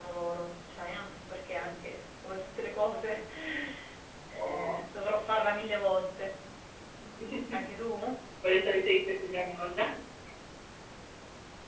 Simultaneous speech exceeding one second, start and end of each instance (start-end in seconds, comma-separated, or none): none